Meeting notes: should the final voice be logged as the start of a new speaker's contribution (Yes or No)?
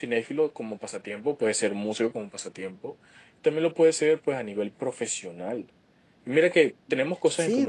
Yes